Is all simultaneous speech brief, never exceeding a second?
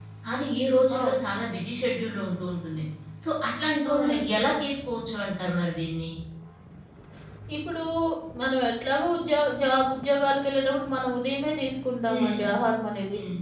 Yes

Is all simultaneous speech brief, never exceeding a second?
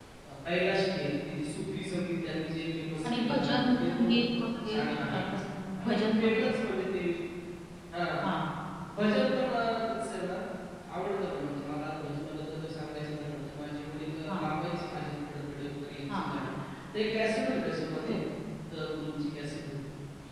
No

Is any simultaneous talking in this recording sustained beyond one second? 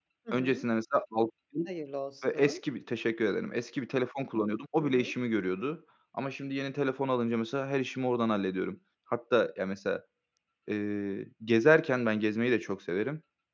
No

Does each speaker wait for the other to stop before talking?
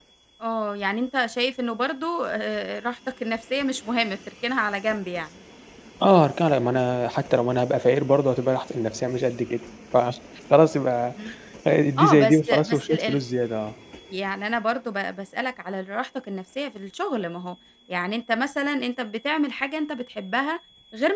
No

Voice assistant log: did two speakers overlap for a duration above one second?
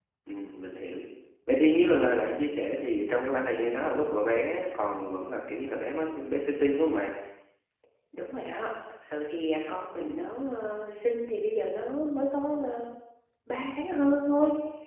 No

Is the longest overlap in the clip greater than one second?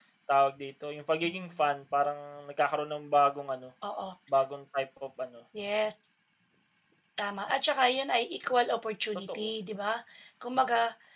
No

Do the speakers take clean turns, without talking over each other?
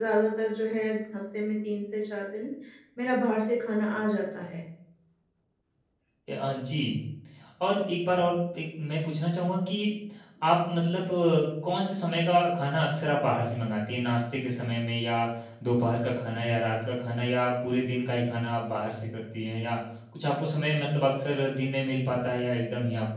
Yes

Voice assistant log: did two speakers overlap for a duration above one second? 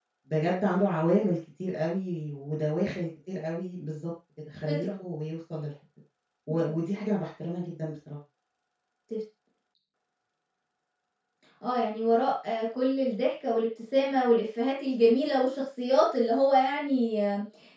No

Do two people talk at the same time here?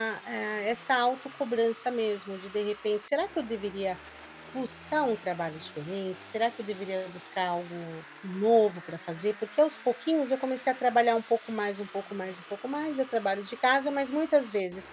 No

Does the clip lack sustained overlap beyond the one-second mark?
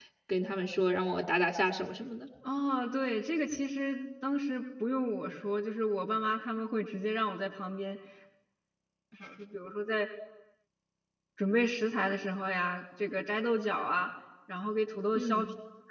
Yes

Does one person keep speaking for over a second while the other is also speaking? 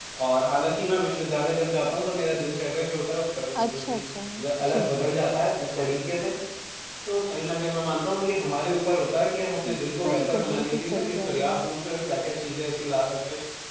Yes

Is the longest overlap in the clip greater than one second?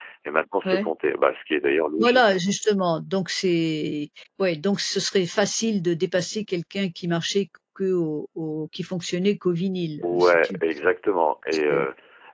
No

